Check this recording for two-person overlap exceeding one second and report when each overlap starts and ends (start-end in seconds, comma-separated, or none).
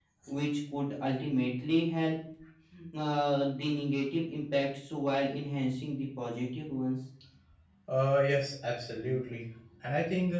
none